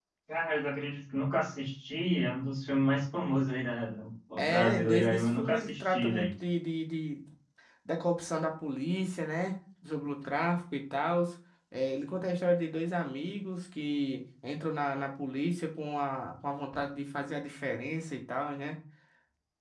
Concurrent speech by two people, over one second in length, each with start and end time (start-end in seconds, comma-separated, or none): 4.4-6.3